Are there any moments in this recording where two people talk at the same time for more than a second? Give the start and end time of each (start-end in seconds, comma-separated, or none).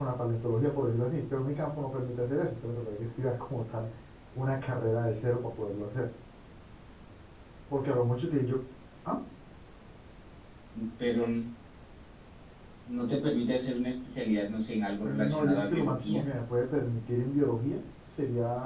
15.0-16.2